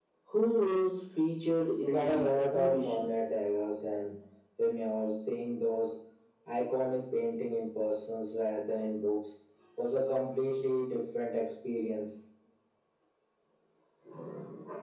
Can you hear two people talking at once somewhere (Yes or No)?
Yes